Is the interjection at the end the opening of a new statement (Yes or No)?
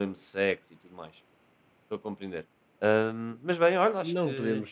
Yes